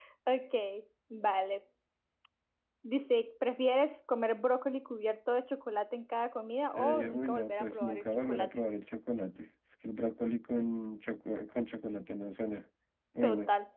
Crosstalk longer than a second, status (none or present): present